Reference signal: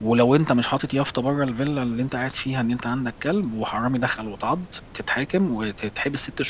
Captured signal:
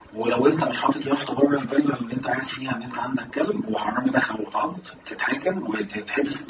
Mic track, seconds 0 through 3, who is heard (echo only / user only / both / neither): echo only